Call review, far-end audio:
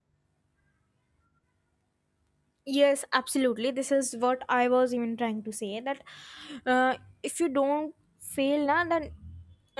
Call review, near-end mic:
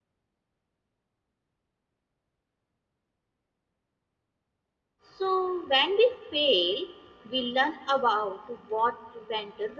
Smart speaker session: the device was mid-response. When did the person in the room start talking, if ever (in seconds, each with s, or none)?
5.1 s